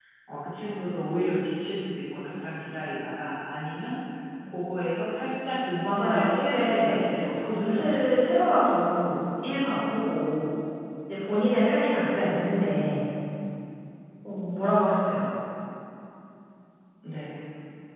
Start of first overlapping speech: 5.8 s

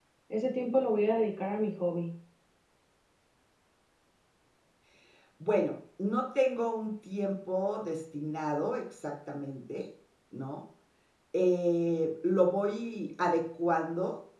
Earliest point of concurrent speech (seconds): none

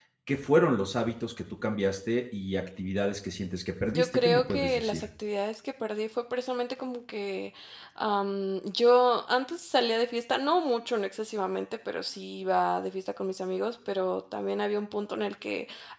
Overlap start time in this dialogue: 3.9 s

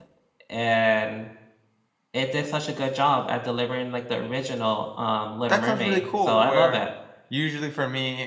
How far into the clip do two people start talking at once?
5.5 s

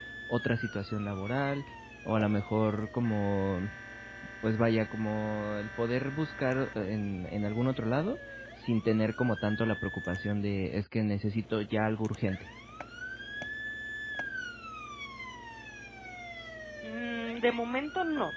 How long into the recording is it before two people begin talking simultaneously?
none

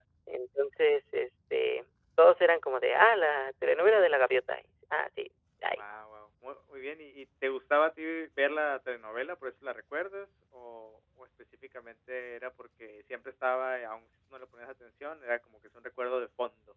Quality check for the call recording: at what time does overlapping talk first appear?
none

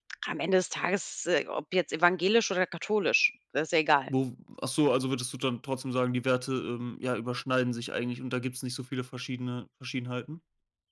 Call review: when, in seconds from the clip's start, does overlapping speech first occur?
none

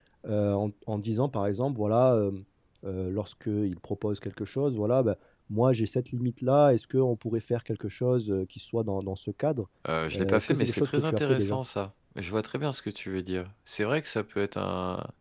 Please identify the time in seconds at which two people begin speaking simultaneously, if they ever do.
10.1 s

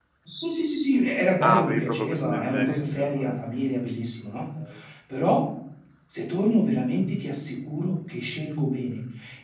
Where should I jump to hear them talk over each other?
1.4 s

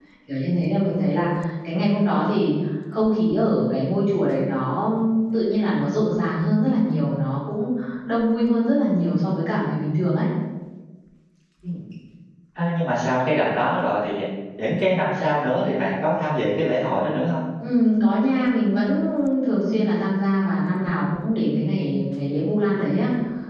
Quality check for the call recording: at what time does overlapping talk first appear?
none

